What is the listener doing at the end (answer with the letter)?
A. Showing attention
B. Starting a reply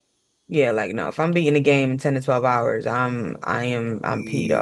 B